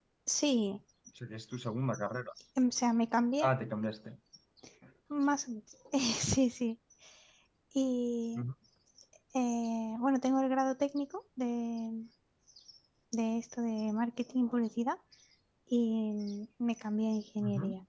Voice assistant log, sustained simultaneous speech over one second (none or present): none